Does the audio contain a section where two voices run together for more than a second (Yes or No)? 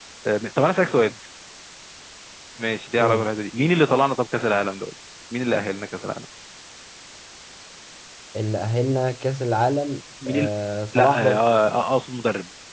No